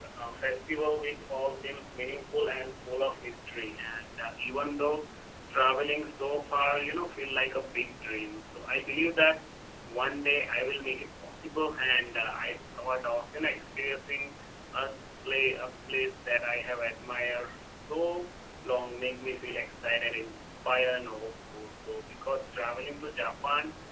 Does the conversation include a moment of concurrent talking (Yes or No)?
No